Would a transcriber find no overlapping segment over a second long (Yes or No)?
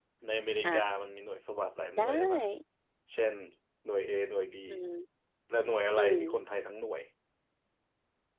Yes